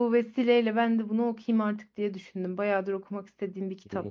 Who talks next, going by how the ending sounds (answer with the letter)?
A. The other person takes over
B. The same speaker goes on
A